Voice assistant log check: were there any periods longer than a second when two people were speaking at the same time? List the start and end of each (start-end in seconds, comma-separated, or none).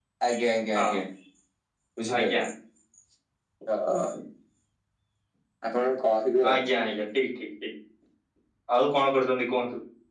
none